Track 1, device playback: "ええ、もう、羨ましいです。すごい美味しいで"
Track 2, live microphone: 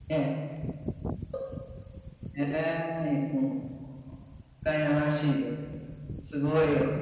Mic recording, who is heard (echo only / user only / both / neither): echo only